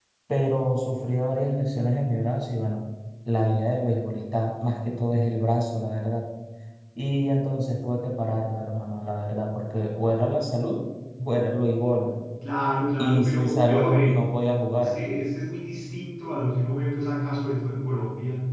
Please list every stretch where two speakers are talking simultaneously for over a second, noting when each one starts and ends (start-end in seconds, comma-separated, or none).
13.0-14.2